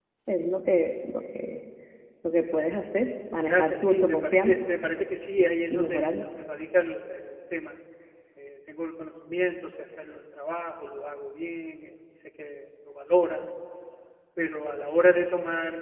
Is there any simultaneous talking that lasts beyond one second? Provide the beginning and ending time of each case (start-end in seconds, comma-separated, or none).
3.4-4.7